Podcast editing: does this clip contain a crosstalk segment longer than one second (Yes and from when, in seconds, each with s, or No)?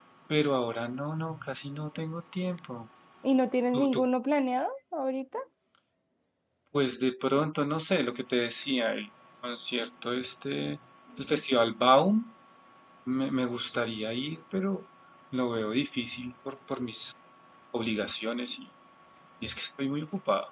No